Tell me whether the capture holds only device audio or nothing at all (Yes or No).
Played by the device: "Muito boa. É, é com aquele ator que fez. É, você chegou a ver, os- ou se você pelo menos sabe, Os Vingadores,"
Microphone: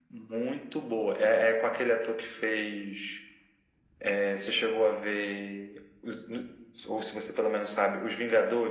Yes